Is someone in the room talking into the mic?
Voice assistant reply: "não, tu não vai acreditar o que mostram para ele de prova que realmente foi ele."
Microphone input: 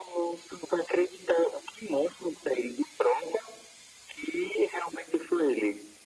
No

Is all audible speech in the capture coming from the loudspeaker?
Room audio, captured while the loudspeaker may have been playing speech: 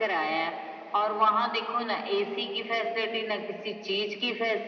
Yes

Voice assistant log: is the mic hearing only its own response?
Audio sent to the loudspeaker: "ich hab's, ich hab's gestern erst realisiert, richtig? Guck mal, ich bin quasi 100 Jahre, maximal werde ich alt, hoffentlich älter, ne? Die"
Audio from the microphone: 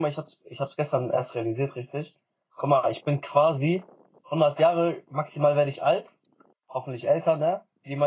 Yes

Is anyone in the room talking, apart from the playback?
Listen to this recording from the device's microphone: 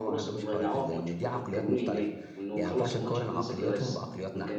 Yes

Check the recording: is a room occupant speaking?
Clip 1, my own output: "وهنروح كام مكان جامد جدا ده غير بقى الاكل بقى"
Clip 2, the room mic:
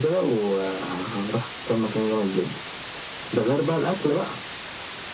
No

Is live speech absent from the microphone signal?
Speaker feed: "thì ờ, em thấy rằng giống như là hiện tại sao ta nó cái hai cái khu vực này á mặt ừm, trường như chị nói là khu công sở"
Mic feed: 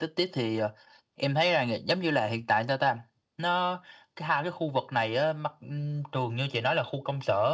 Yes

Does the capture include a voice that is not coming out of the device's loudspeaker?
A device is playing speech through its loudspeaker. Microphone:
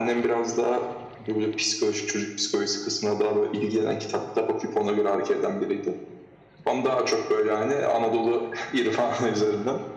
No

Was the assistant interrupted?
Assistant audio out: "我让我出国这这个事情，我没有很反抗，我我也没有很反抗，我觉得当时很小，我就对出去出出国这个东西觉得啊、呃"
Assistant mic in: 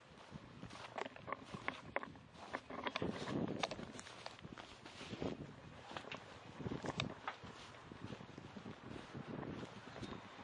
No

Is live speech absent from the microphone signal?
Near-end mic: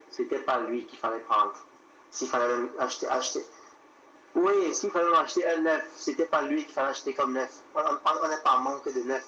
Yes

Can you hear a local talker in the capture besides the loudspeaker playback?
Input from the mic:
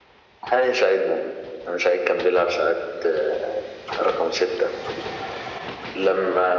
No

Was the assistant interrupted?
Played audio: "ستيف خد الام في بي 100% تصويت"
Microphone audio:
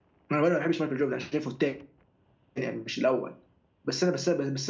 Yes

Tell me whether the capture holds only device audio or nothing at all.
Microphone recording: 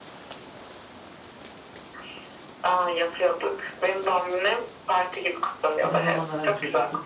No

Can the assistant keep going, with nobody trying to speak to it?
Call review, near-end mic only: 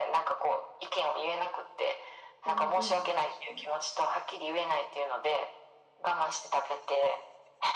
No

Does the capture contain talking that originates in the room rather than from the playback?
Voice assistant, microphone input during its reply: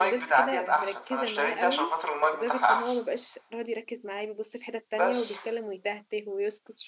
Yes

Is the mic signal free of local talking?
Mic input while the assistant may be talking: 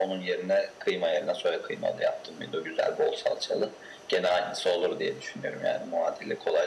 Yes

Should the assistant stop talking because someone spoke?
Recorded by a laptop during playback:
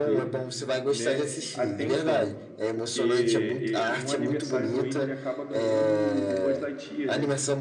Yes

